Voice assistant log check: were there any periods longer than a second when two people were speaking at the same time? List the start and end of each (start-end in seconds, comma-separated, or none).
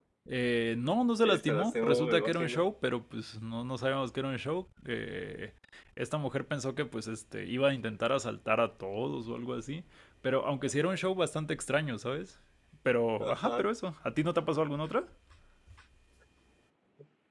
1.2-2.6